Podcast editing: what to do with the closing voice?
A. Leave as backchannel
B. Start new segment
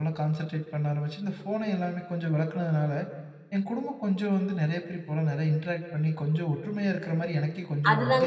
B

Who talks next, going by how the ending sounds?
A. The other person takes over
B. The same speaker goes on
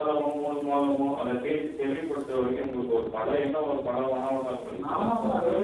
A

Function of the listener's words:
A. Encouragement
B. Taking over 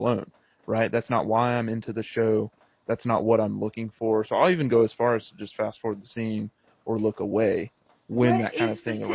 B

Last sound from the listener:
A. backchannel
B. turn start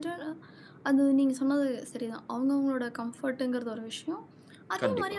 A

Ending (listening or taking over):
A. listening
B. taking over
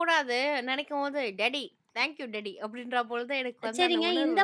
B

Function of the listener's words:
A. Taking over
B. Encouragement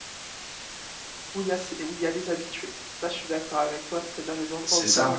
B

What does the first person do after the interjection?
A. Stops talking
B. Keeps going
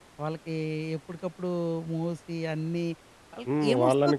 A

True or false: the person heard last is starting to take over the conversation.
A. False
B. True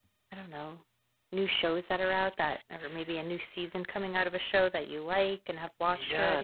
B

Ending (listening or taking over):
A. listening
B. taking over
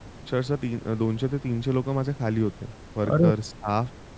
A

